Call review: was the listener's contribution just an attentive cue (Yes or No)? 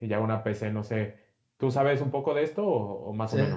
No